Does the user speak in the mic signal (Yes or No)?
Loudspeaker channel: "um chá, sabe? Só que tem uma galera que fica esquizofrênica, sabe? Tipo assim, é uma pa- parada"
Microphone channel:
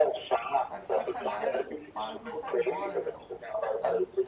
Yes